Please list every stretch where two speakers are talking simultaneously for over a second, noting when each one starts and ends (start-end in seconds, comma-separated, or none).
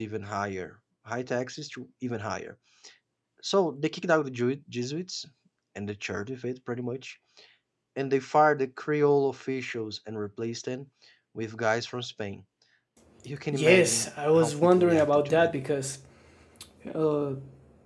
13.5-15.5